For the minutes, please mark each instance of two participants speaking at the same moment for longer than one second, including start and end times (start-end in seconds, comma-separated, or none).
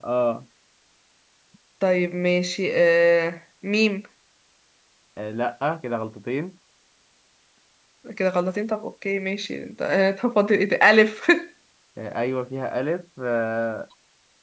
none